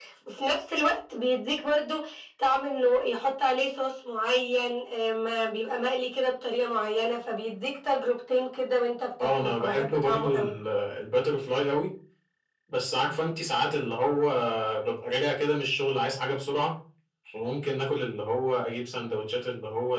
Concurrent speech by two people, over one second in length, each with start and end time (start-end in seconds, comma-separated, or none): 9.2-10.5